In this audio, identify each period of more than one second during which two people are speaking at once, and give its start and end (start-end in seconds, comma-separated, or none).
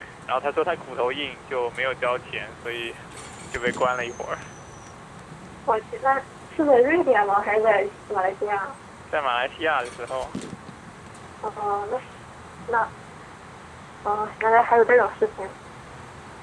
none